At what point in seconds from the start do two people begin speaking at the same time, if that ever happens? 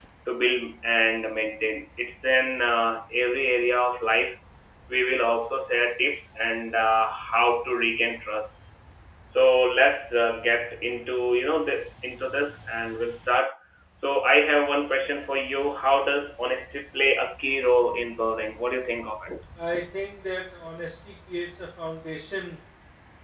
none

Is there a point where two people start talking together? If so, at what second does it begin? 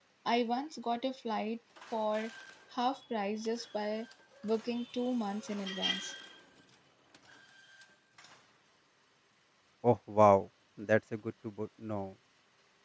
none

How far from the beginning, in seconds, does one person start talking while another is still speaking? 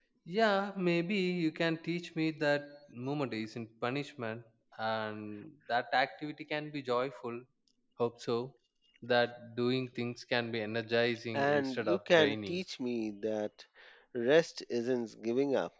11.3 s

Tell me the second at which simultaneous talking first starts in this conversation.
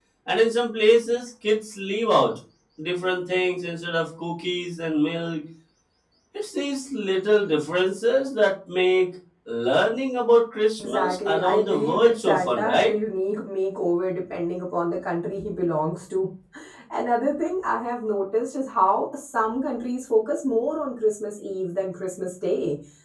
10.8 s

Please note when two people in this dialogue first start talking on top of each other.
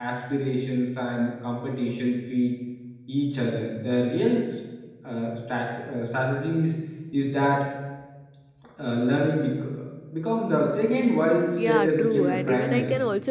11.6 s

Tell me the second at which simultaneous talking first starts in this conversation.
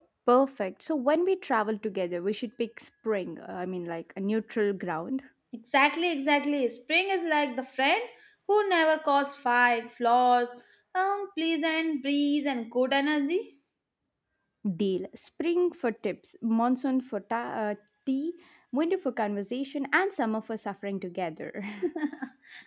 none

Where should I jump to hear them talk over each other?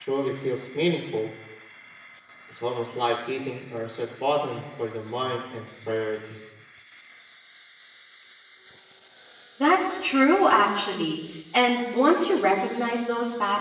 none

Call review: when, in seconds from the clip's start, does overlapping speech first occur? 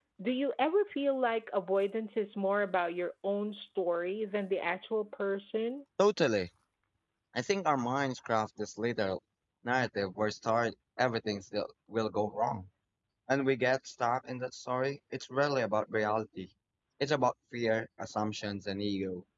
none

